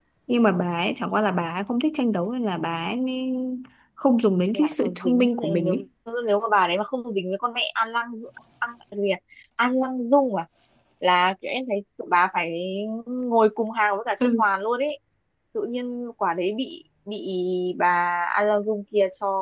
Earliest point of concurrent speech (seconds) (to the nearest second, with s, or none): 5 s